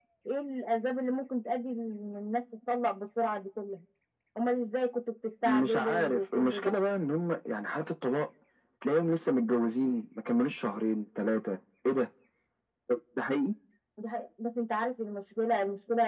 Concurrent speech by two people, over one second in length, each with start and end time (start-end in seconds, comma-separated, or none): 5.4-6.7